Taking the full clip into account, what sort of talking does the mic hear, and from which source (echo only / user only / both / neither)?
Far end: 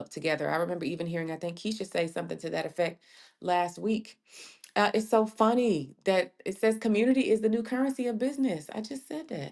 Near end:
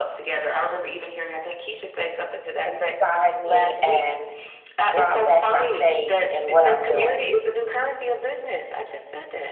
both